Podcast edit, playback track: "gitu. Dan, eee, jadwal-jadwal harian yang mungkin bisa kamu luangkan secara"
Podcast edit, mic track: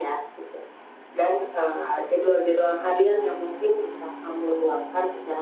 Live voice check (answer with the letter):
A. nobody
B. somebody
A